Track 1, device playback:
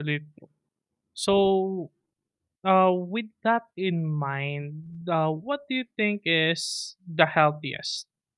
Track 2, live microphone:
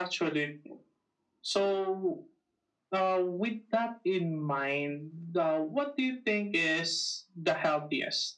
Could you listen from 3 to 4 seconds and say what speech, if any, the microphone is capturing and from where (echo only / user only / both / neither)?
echo only